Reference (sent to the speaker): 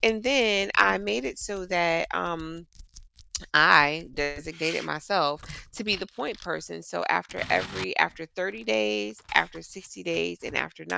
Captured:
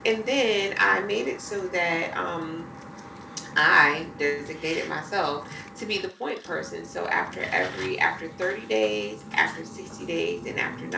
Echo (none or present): present